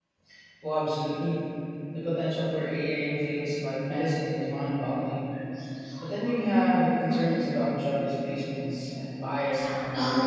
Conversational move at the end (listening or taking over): taking over